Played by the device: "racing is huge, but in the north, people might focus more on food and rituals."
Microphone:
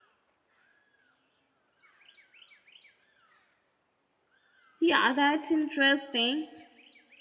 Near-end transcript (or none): Yeah, that's interesting.